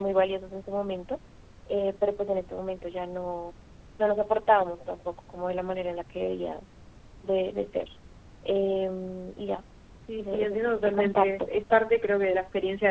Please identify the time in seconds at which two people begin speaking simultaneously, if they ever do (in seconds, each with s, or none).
10.2 s